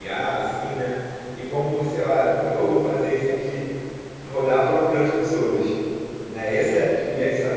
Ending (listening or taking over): listening